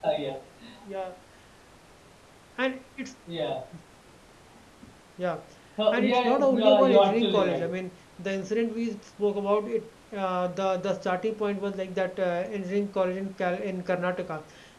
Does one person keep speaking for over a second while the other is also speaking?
Yes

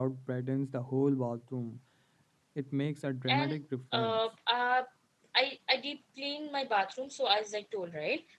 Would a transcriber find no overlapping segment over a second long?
Yes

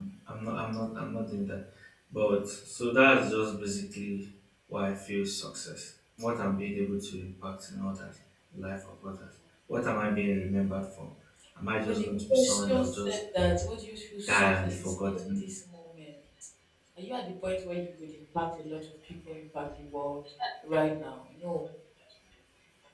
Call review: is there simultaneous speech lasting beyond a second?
Yes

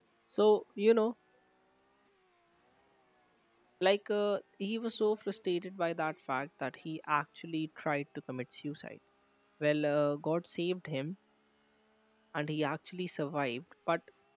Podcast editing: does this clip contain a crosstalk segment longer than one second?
No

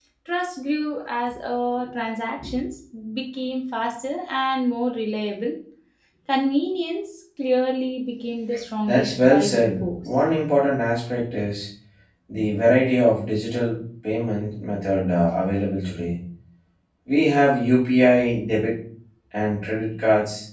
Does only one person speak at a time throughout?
No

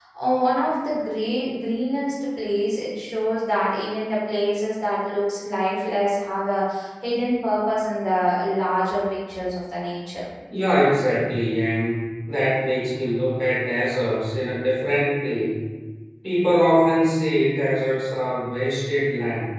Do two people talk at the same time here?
No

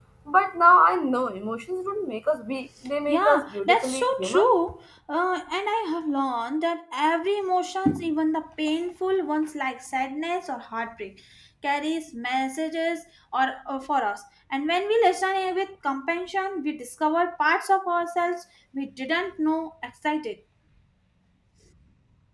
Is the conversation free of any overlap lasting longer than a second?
No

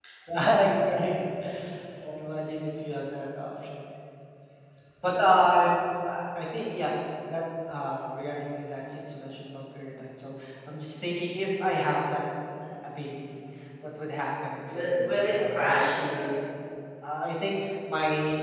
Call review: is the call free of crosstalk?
No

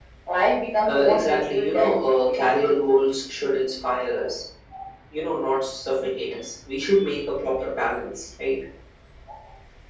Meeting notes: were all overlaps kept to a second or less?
No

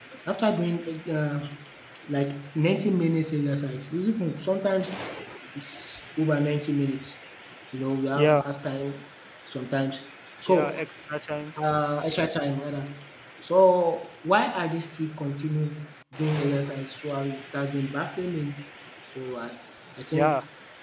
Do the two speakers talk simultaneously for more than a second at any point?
No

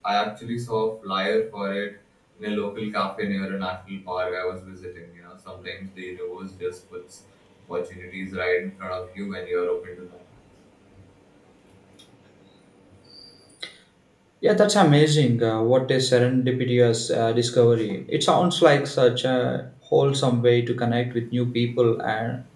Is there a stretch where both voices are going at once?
No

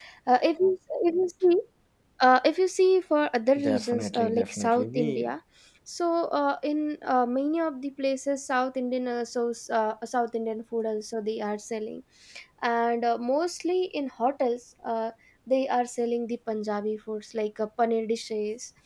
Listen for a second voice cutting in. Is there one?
Yes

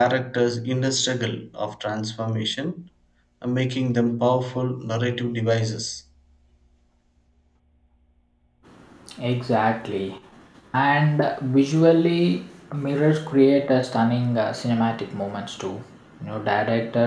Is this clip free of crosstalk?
Yes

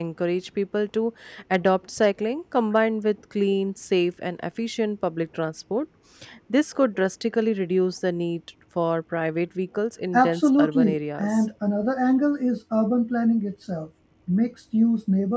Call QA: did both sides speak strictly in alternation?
No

